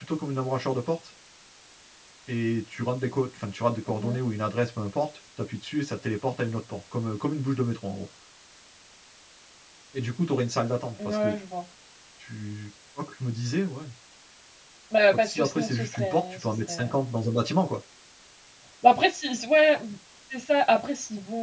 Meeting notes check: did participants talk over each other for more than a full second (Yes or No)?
Yes